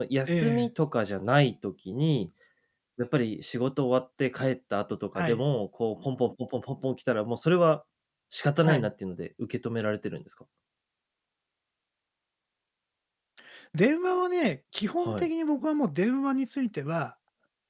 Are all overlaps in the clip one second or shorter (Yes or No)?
Yes